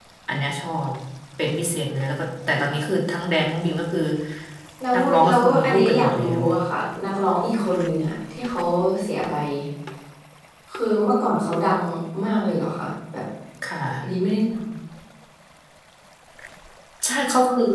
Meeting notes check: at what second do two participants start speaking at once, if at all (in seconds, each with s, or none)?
4.9 s